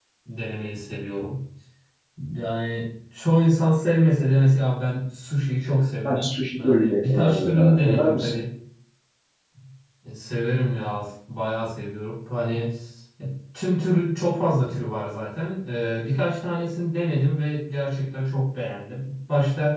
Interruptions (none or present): present